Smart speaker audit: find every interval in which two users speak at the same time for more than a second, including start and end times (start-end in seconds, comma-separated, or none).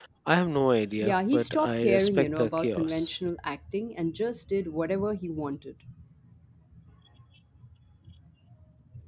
1.0-3.1